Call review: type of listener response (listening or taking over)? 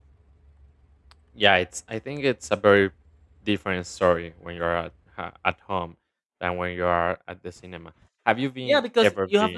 taking over